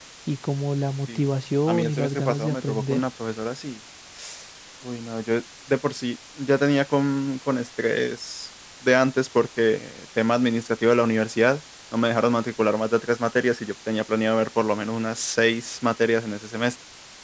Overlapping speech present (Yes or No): Yes